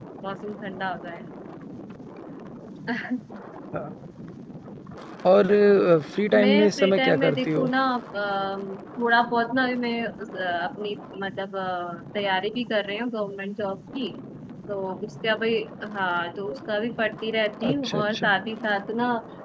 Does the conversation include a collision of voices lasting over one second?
Yes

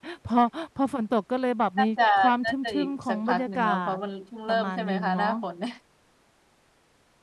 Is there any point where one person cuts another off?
Yes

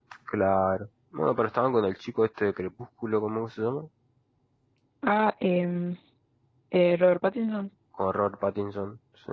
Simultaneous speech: No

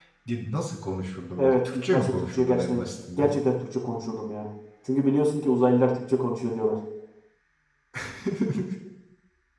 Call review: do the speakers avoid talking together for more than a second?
No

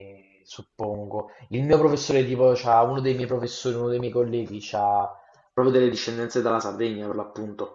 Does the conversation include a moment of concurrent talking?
No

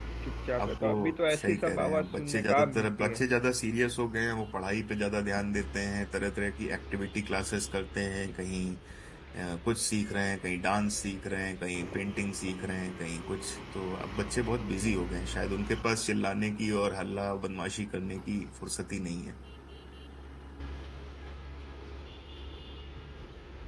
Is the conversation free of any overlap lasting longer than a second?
No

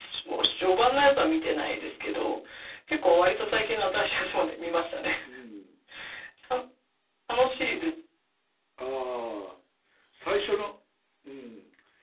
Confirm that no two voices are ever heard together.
Yes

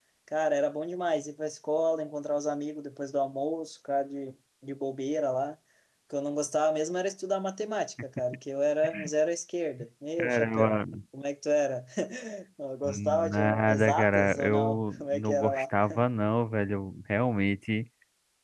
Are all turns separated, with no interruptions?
No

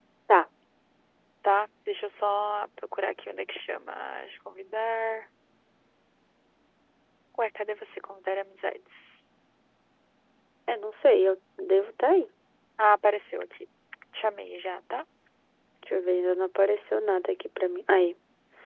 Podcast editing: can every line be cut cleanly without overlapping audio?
Yes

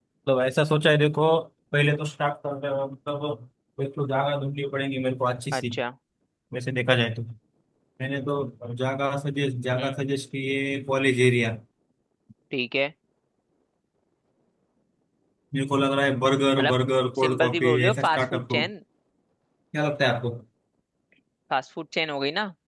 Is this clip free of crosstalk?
No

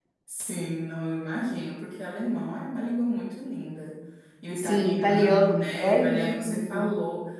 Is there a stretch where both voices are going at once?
Yes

